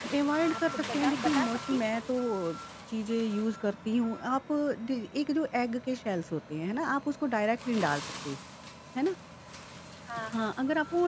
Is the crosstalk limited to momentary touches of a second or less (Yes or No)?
No